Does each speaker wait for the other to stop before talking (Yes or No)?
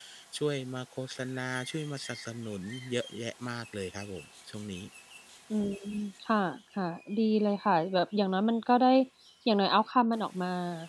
Yes